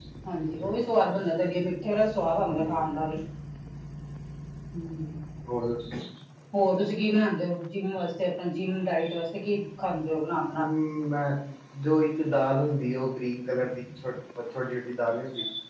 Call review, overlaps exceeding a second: none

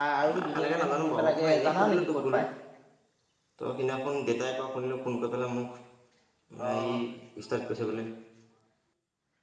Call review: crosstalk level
present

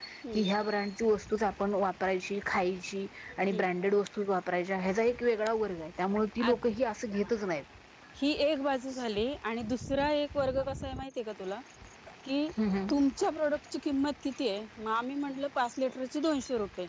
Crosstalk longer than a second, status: none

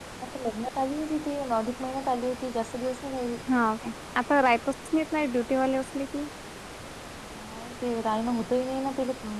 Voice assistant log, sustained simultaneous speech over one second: none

